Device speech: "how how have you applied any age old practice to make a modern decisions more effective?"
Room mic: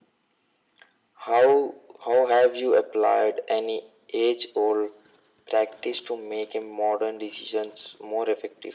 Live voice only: none

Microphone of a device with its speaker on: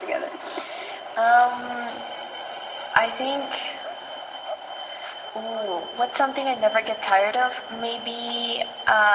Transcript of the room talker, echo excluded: none

